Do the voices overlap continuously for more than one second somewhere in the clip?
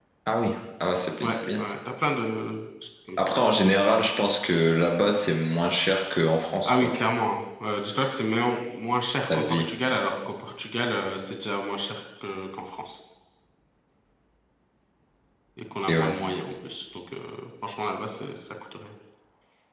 No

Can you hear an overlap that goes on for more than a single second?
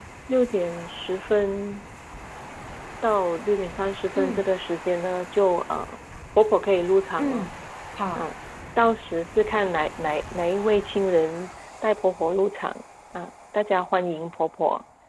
No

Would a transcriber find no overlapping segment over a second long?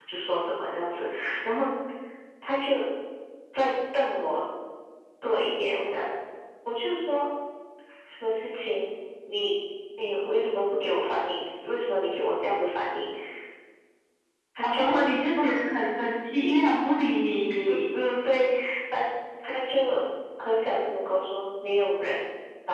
Yes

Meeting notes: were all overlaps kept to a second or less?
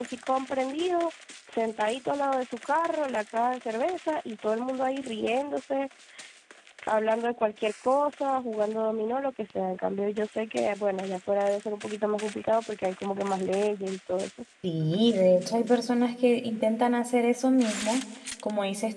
Yes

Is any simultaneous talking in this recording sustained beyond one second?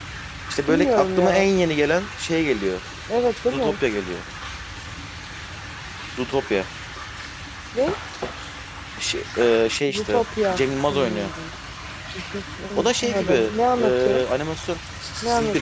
Yes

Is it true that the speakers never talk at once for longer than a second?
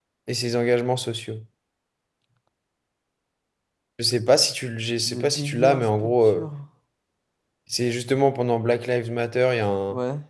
No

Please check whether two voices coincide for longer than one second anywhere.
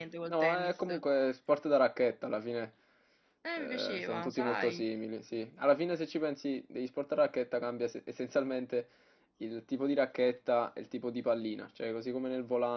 Yes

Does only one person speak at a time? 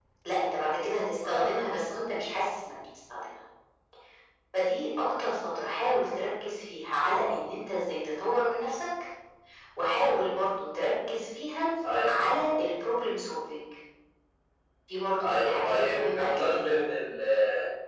No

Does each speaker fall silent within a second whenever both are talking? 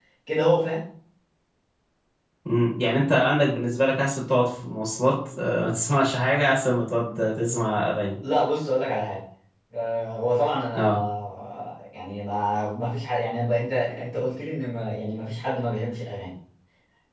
Yes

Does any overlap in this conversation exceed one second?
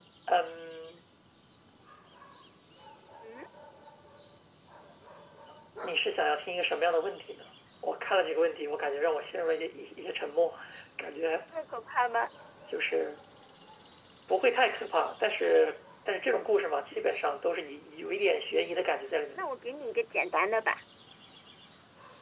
No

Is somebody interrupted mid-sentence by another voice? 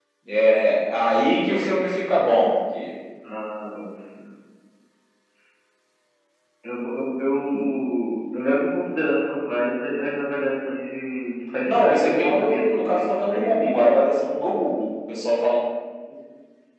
Yes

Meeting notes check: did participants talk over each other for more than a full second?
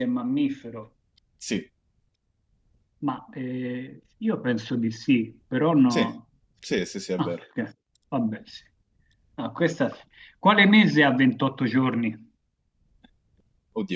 No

